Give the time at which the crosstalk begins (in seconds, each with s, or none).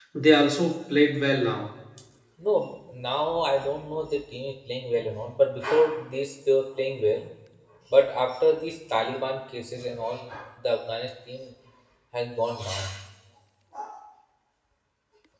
none